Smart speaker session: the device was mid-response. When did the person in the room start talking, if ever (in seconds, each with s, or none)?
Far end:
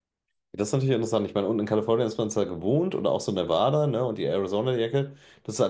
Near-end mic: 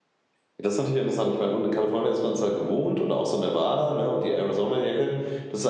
none